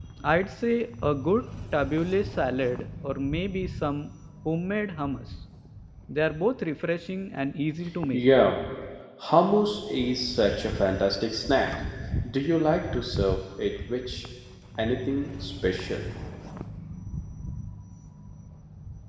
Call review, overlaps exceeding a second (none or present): none